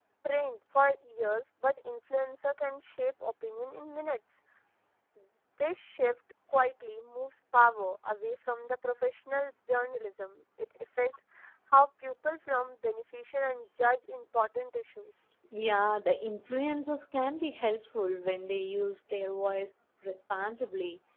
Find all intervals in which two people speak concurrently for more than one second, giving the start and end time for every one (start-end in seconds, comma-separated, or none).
none